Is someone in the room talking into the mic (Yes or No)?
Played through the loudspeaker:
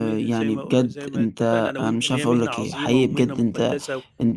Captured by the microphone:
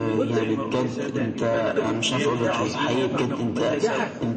Yes